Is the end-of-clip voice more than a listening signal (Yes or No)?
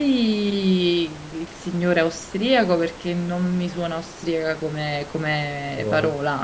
No